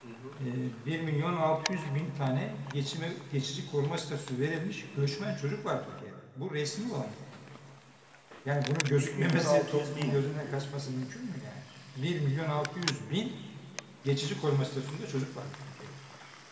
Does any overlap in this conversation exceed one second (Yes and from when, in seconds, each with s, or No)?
Yes, from 9.0 s